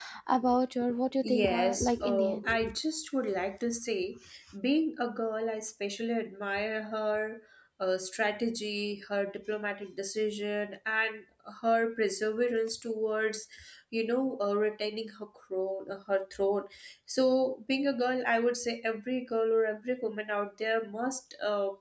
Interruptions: present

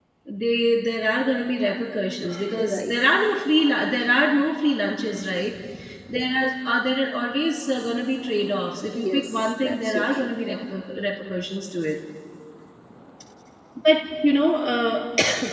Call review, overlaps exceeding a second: present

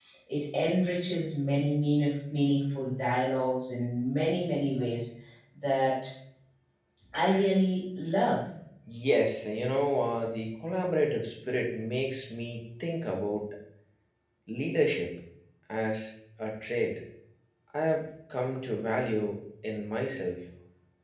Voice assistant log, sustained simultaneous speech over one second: none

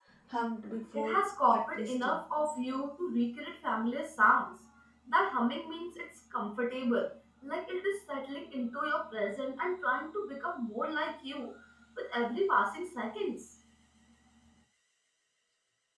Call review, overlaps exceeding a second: present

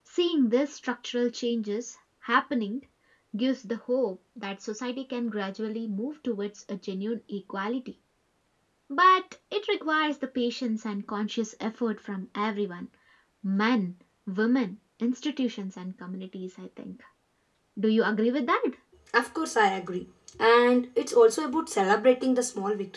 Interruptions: none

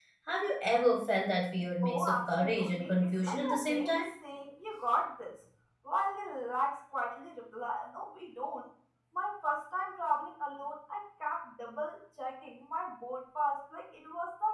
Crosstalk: present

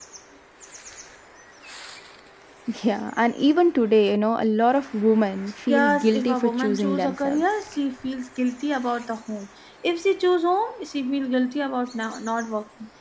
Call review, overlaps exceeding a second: present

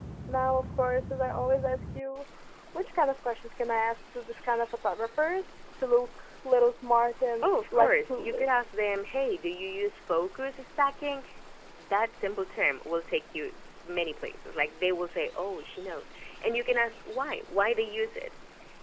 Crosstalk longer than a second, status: present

